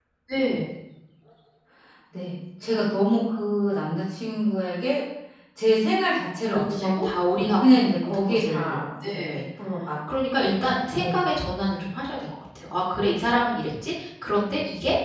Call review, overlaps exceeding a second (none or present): present